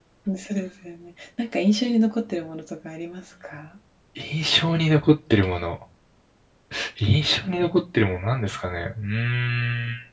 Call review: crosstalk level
none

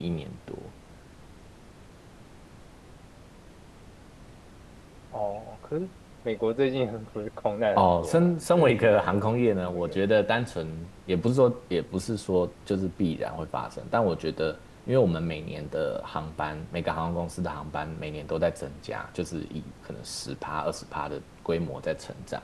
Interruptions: present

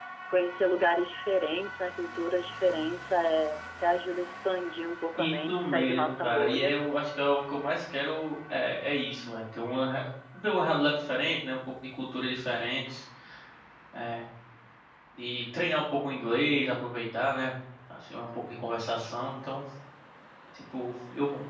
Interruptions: present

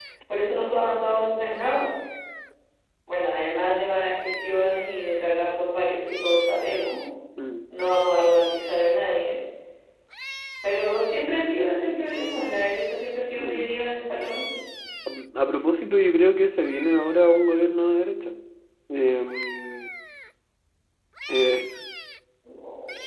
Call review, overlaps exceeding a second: none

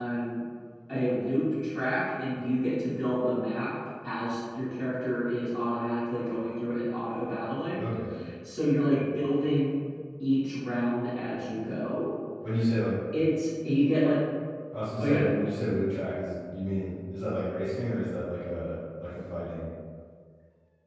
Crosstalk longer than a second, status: none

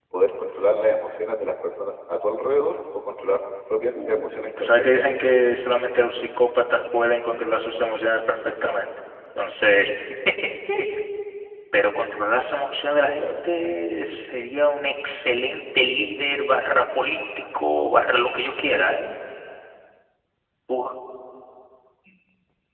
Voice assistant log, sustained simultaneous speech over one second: present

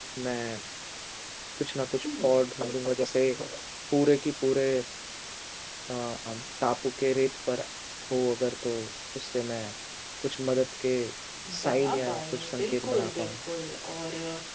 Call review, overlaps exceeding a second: present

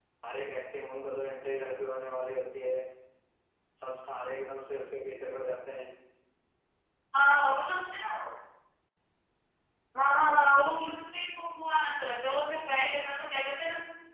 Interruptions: none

